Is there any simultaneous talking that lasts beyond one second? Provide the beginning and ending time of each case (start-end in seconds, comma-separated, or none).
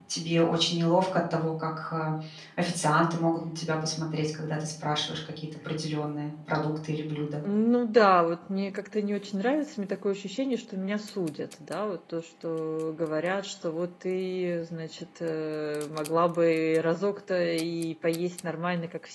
none